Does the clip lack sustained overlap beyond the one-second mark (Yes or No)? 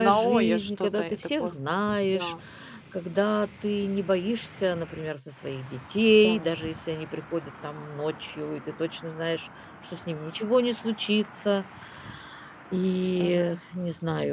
No